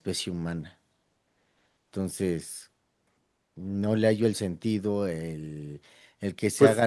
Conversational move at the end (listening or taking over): listening